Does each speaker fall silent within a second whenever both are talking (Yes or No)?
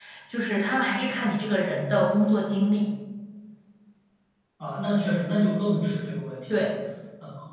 Yes